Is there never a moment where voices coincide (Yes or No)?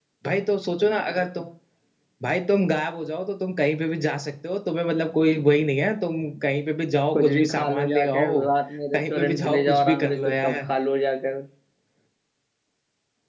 No